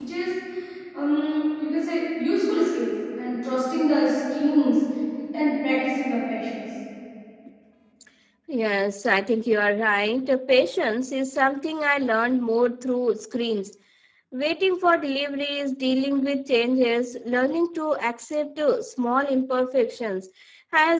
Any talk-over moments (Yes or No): No